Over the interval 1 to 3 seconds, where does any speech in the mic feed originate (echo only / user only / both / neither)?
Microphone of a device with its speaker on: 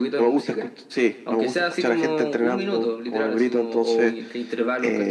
echo only